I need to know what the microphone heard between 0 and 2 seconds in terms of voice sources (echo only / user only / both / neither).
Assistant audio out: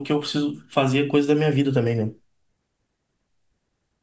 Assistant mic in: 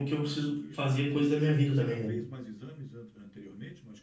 both